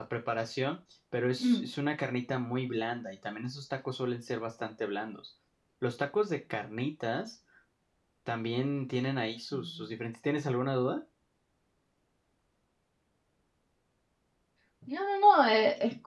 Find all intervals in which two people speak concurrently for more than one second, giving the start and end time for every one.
none

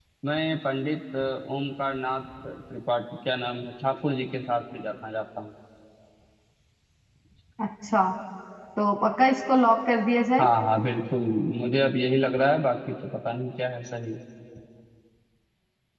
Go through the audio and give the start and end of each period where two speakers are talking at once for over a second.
none

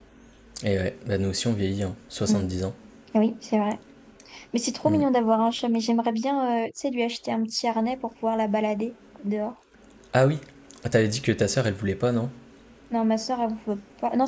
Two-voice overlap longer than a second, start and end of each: none

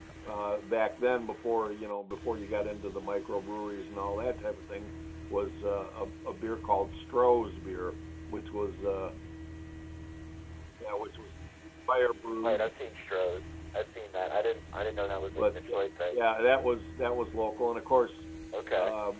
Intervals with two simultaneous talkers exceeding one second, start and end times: none

